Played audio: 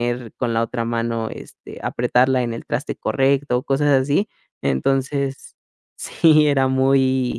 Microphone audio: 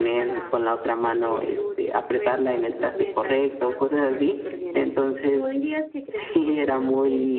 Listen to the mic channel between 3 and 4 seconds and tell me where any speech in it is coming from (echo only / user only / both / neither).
both